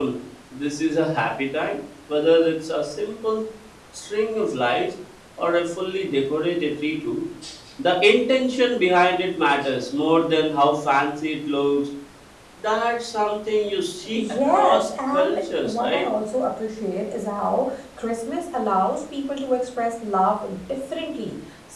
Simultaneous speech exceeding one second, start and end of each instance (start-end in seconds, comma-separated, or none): 14.1-16.1